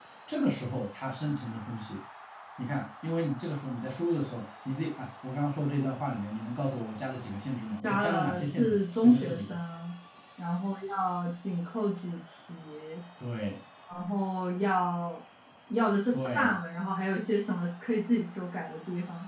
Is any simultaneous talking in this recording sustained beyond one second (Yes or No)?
Yes